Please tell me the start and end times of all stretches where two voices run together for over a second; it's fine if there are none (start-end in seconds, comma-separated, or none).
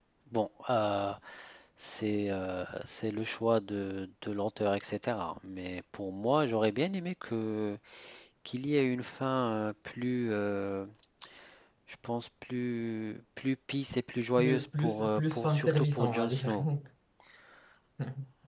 14.4-16.6